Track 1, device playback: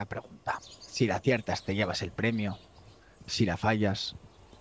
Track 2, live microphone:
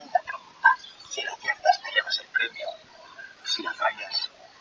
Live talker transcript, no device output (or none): none